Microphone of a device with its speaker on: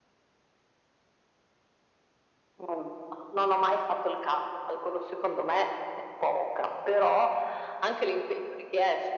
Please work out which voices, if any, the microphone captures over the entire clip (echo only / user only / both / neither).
echo only